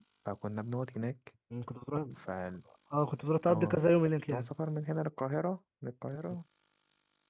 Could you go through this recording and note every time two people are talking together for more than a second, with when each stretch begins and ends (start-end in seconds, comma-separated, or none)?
none